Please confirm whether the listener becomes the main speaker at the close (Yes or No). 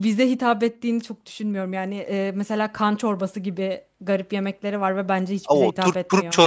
Yes